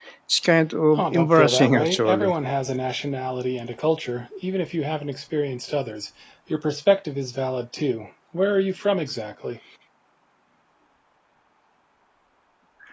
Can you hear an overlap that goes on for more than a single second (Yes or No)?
Yes